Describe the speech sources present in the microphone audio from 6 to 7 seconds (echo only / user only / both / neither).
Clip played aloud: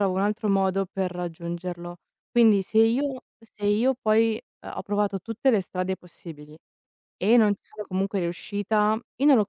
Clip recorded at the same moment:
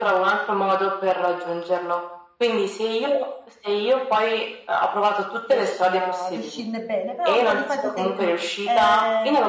both